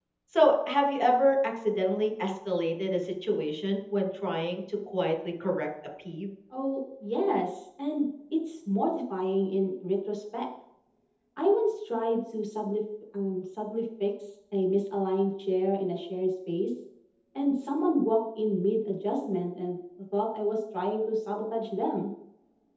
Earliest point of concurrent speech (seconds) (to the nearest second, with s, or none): none